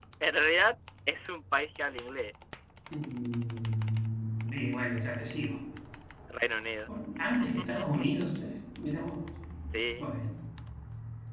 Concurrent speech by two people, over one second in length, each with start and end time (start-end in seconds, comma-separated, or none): none